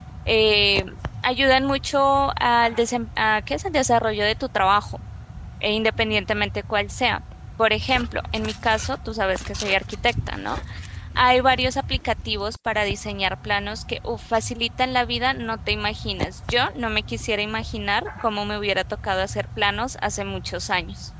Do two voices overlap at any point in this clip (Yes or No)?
No